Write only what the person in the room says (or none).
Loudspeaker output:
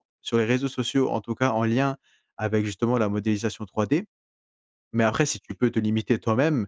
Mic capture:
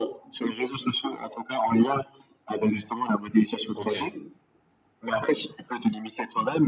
OK.